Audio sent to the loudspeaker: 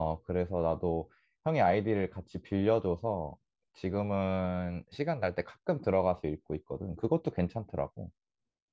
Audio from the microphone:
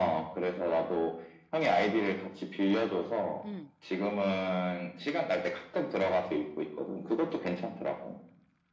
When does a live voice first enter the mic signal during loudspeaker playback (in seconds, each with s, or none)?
3.4 s